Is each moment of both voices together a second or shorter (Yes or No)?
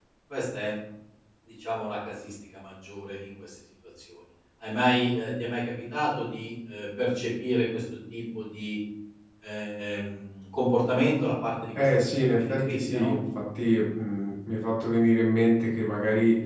No